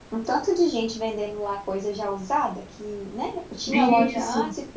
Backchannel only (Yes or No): Yes